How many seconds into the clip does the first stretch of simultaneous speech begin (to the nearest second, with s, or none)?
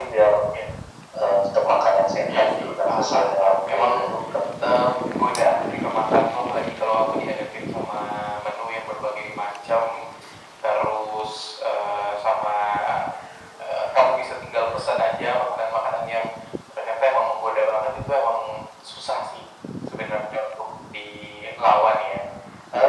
2 s